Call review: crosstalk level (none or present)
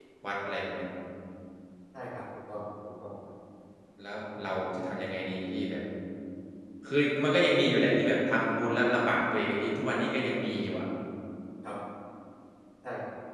none